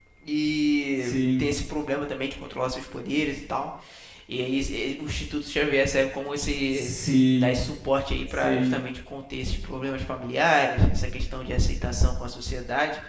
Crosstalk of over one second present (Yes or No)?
No